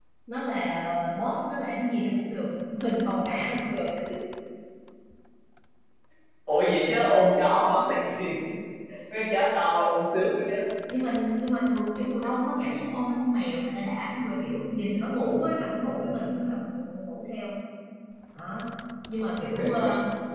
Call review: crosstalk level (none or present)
none